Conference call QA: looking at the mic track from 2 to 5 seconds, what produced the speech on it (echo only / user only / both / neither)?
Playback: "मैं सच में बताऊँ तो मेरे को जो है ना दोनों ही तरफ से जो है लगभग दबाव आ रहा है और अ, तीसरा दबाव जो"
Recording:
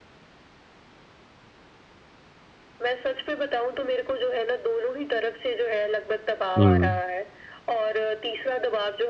echo only